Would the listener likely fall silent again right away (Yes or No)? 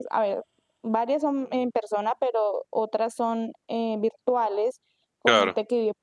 Yes